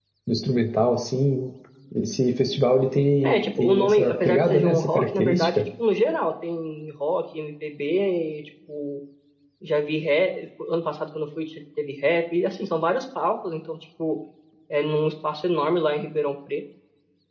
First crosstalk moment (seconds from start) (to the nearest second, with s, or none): 3 s